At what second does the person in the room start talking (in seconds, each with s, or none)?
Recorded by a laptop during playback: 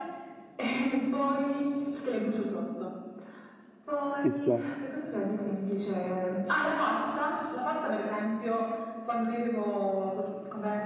4.2 s